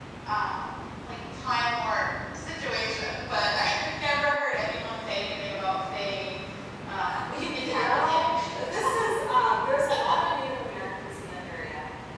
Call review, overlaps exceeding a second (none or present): present